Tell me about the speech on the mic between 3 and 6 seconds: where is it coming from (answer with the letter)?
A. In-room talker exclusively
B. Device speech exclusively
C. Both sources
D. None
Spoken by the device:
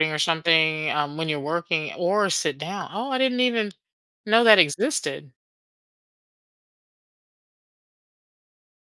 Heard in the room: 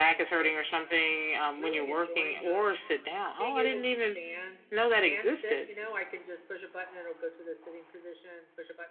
C